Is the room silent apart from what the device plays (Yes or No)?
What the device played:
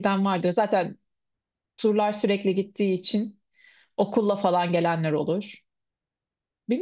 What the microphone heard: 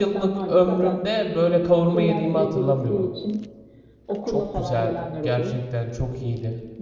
No